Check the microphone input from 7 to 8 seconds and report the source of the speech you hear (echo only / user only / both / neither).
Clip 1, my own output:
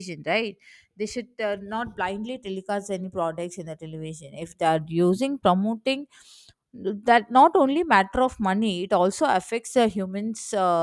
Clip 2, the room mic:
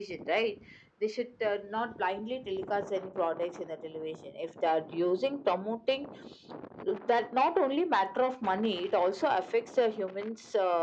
echo only